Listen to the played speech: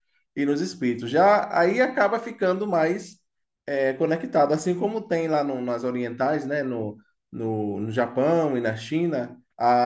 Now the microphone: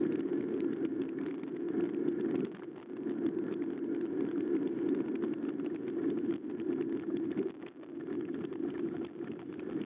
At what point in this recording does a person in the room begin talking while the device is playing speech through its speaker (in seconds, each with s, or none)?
none